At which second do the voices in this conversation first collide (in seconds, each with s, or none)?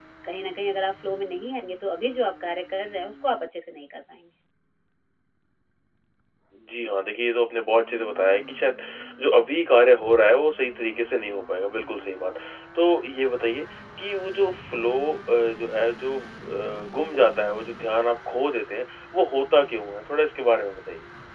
none